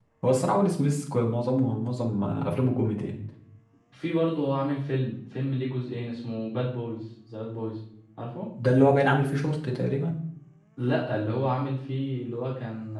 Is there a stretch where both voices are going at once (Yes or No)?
No